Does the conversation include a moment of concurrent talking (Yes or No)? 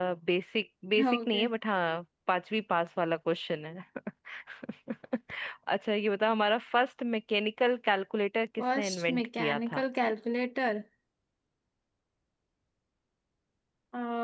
Yes